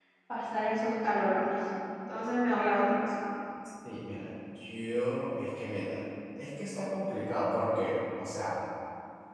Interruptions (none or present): none